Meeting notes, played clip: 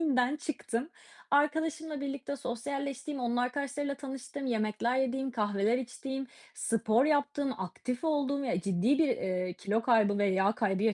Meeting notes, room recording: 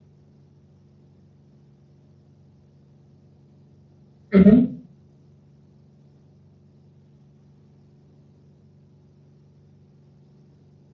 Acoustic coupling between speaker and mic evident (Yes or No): No